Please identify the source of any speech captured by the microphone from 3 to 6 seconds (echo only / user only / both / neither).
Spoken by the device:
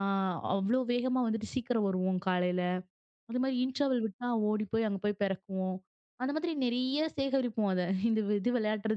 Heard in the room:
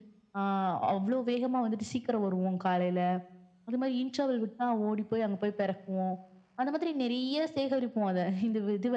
echo only